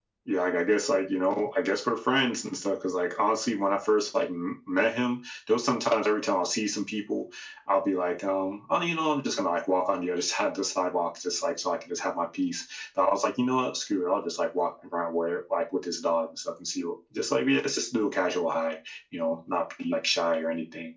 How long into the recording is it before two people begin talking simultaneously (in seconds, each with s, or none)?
none